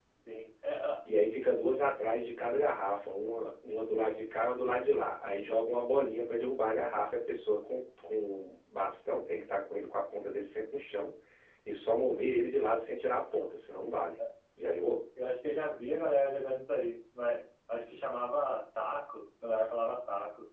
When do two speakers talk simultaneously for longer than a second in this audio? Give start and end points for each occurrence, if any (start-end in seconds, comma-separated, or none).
none